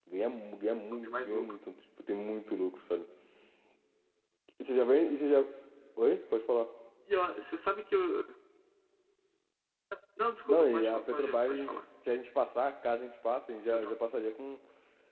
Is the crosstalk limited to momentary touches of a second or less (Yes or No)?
No